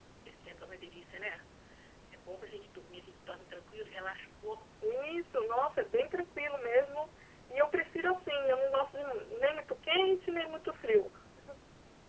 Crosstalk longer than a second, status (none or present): none